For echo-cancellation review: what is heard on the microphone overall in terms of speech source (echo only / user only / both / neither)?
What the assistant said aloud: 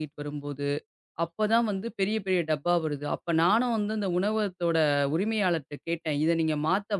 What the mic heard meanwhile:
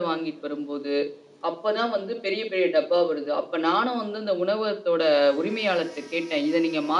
echo only